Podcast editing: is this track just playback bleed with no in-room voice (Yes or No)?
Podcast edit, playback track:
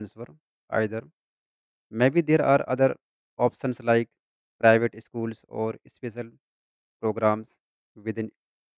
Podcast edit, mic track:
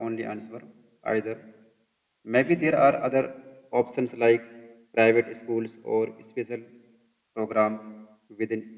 Yes